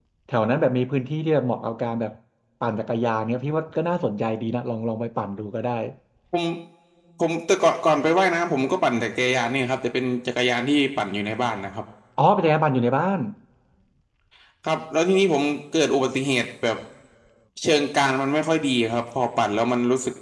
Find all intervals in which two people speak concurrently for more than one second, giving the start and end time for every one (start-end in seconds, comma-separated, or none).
none